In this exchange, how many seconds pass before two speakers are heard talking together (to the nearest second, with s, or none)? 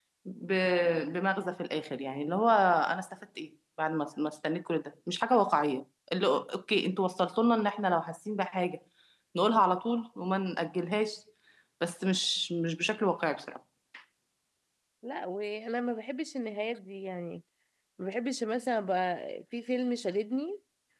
none